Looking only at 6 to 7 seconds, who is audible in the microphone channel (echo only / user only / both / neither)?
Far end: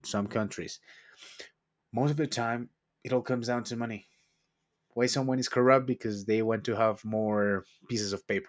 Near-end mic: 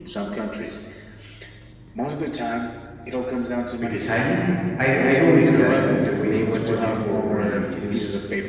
both